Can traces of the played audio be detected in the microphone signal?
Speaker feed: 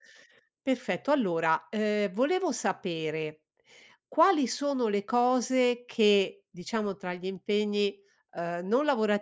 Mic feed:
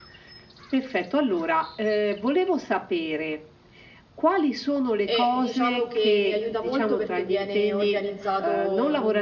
Yes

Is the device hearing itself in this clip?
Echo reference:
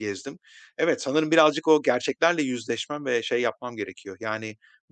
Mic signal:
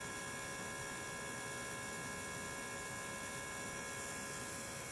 No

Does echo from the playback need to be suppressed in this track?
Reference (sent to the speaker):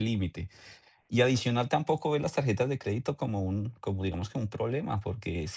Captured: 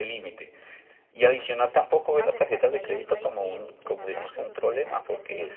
Yes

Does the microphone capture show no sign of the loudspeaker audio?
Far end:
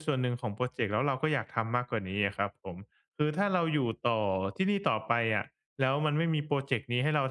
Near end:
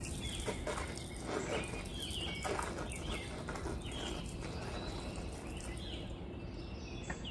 Yes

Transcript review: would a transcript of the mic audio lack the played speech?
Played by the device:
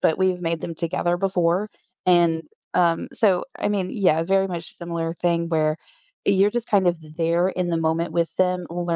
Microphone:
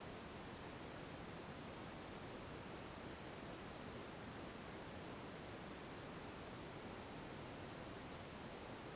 Yes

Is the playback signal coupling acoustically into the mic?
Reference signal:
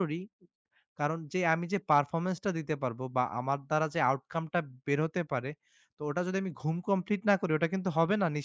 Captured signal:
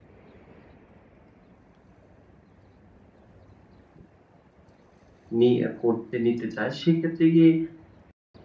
No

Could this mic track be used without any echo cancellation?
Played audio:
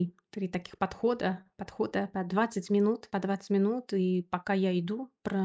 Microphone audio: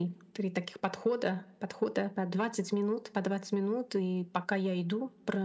No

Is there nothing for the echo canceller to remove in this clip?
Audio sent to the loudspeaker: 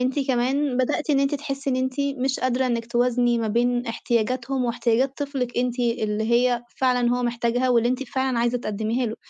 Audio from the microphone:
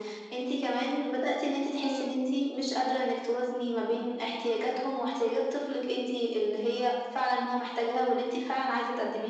No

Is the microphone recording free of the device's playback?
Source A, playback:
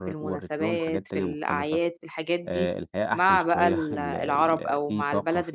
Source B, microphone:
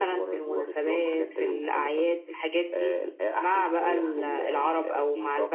No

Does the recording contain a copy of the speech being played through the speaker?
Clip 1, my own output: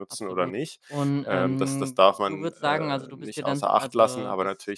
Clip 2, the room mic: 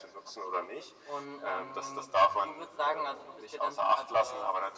Yes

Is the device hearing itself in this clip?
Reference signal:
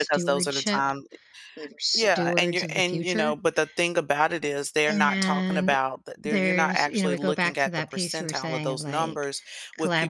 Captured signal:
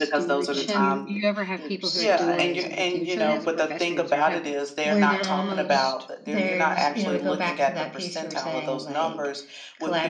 Yes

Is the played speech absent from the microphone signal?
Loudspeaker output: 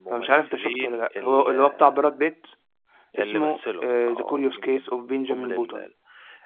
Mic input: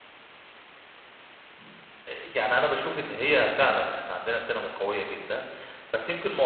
Yes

